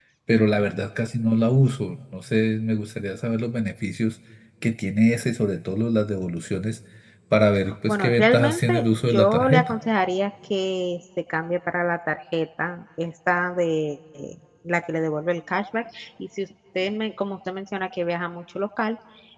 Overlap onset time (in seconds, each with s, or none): 7.9 s